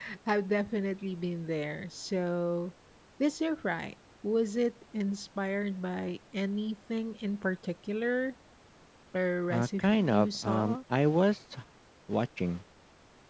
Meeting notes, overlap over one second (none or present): present